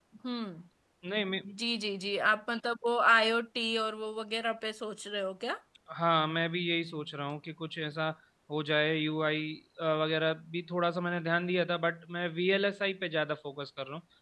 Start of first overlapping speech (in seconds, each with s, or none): none